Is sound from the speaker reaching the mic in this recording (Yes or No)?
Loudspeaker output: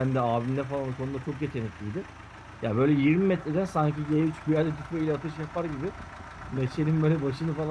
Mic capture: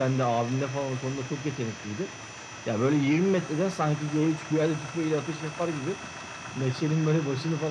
Yes